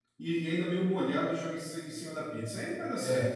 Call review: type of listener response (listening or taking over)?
taking over